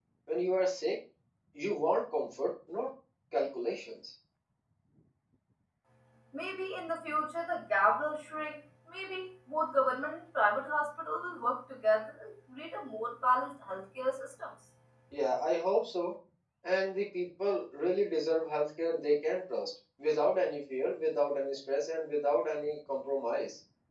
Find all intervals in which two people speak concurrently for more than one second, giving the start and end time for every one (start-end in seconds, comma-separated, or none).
none